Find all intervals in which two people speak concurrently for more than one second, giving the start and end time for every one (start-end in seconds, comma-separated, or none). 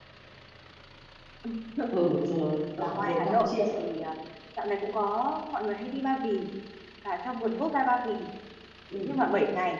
2.8-4.0